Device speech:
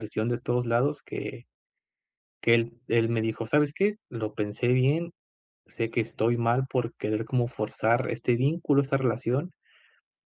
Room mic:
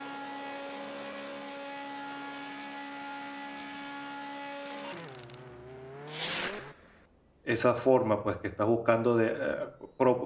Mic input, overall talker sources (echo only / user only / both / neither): user only